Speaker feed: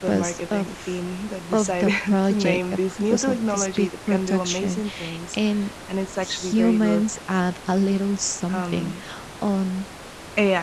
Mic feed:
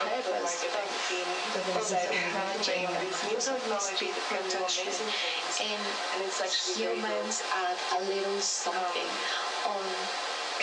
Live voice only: to best describe it, but

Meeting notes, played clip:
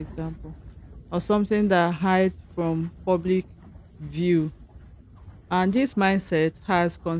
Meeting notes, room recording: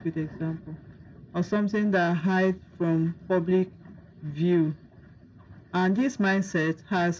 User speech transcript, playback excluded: none

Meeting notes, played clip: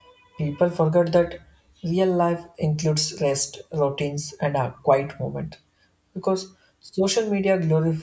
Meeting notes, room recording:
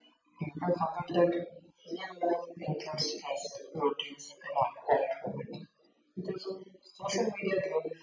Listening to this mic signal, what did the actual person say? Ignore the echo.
none

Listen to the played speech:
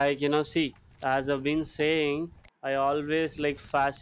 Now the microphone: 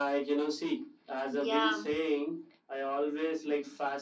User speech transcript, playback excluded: yeah

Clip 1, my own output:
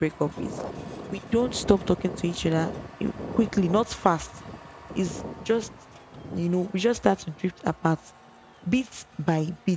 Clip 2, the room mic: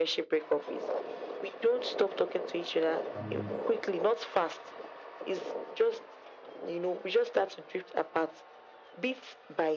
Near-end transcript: I'm with

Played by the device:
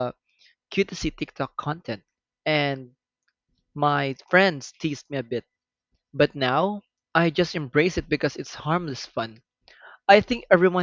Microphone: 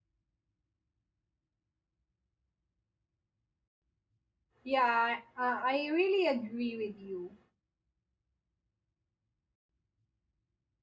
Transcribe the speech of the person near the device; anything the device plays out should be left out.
Yeah, uh, I really agree with you.

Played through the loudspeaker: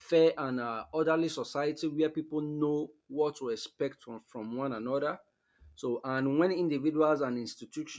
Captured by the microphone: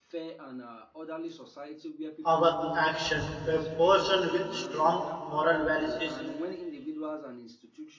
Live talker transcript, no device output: our action a person with strong moral values is

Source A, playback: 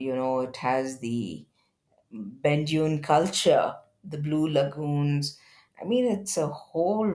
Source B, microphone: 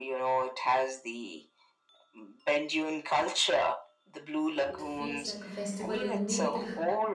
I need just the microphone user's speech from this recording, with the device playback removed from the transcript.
It feels like a festival indeed.

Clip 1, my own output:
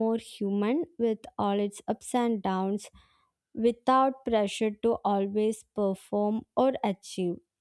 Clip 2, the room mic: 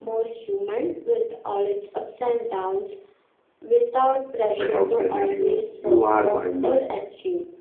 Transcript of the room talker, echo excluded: but how present you you are while living it.

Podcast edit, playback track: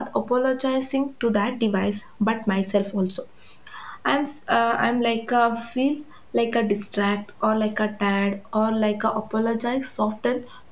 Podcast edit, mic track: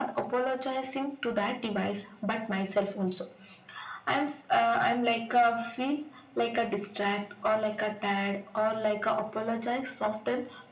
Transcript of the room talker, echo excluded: none

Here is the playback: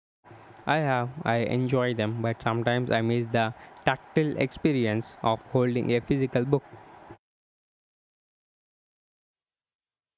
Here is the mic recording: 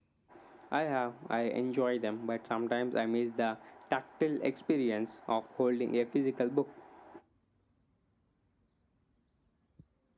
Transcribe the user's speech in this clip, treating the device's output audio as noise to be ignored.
none

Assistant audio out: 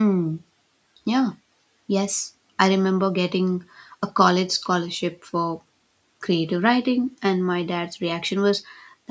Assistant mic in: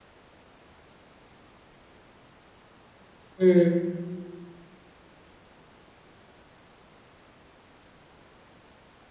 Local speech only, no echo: mm.

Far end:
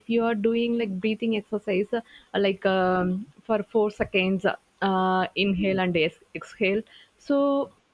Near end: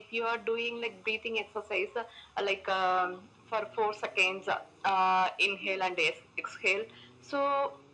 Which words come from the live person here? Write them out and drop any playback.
none

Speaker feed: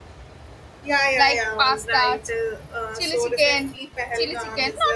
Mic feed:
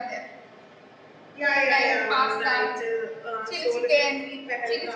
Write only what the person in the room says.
none

